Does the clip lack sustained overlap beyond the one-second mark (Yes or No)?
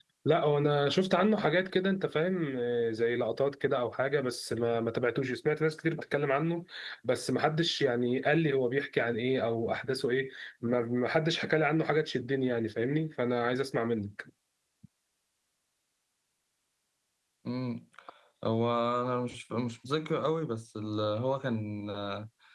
Yes